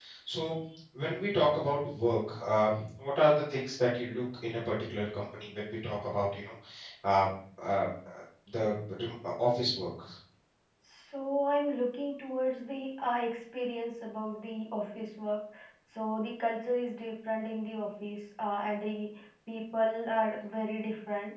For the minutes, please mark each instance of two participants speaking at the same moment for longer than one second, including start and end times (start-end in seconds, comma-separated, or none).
none